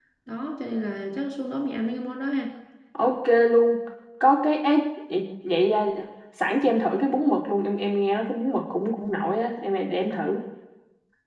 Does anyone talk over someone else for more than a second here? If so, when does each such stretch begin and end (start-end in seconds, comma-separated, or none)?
none